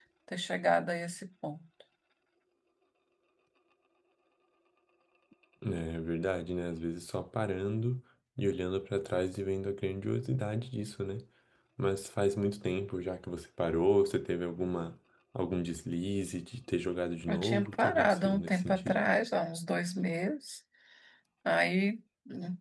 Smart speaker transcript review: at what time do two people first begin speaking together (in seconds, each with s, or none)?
17.3 s